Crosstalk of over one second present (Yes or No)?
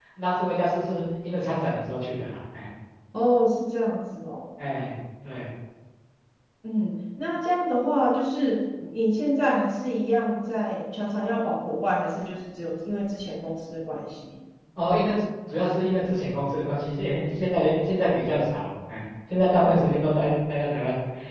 No